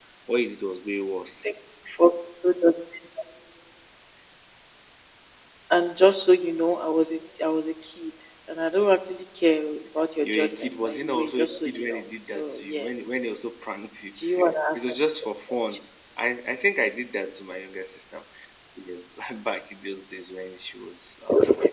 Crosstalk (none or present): present